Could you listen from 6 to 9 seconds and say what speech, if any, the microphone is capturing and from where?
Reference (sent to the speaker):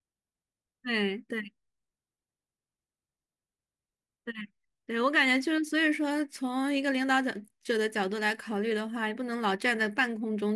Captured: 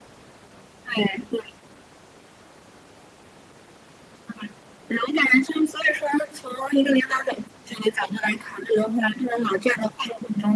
echo only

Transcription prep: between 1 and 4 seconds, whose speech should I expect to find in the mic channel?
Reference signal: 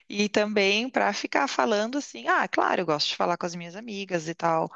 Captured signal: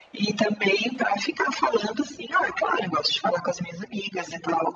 echo only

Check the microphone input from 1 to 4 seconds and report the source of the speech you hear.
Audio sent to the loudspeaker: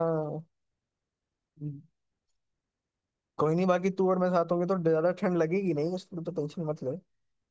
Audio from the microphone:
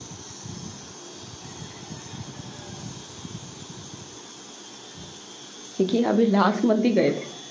neither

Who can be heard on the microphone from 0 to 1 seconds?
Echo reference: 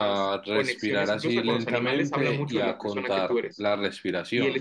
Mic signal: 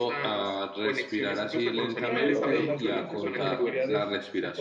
echo only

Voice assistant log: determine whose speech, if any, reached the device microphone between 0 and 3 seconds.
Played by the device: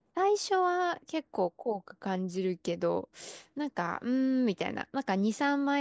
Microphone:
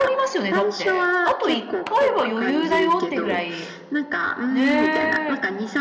both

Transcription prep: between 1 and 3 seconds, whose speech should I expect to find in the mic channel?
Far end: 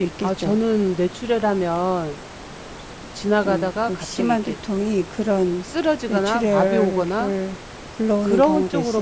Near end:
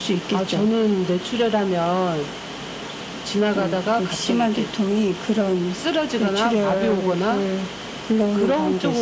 echo only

